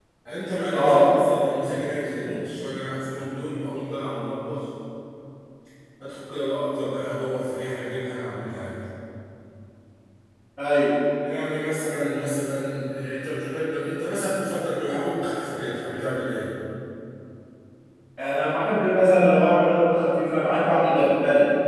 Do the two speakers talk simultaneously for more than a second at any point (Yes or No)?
No